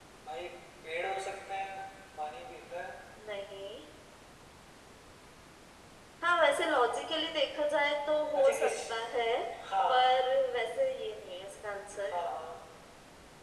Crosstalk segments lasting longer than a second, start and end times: none

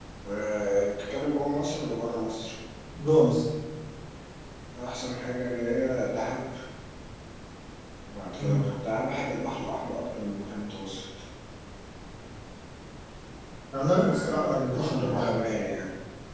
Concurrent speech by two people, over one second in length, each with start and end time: 13.9-15.4

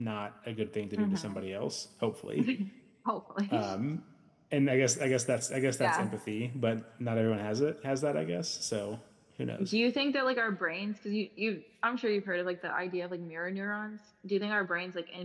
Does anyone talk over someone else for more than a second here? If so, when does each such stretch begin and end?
none

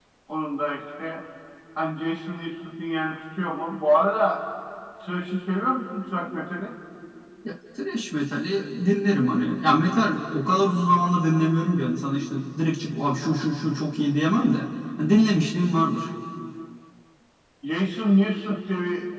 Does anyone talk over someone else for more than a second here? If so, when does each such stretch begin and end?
none

